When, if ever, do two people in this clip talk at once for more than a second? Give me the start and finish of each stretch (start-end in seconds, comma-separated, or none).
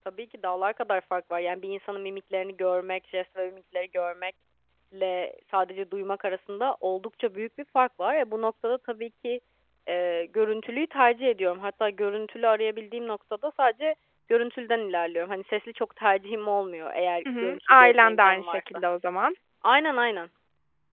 17.4-18.8